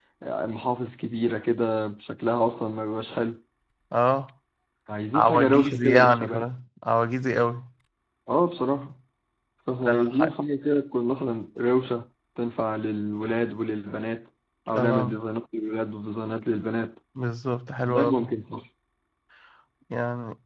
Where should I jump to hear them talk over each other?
5.1 s

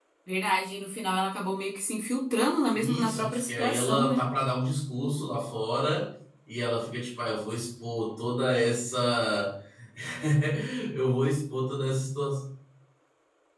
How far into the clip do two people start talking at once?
2.7 s

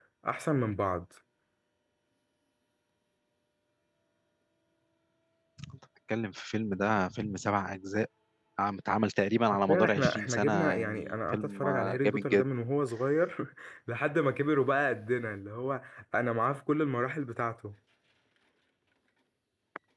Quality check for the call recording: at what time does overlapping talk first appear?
9.7 s

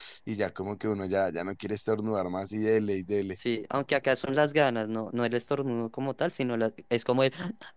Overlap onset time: none

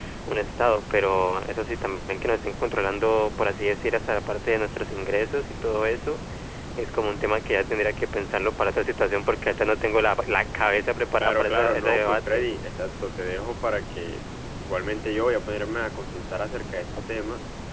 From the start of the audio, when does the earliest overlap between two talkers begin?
11.2 s

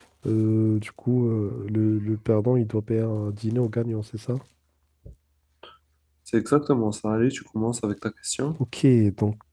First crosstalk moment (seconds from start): none

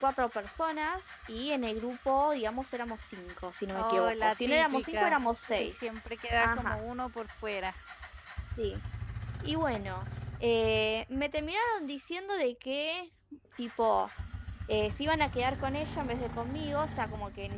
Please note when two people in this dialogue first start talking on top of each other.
3.7 s

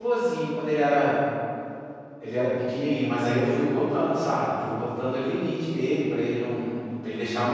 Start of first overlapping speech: none

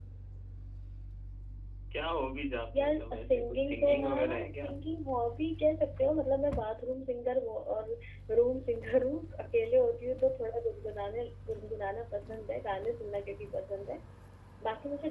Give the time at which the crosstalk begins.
2.8 s

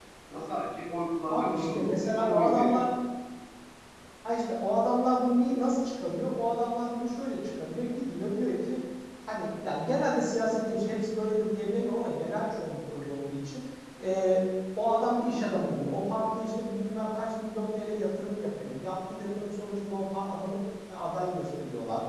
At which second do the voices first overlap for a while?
1.3 s

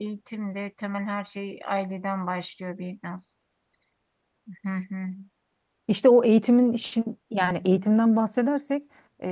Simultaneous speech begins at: none

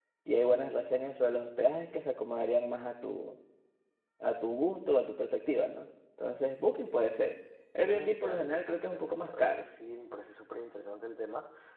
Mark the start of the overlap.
7.8 s

